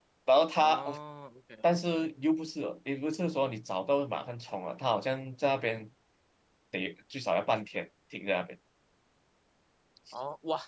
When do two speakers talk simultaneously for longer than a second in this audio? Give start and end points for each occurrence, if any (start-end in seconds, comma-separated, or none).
none